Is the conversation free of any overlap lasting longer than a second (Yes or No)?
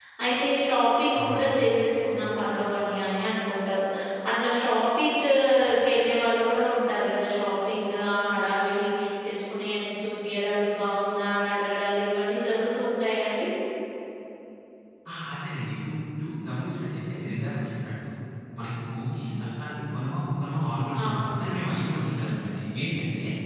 Yes